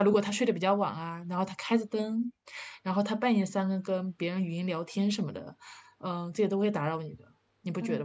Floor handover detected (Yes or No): Yes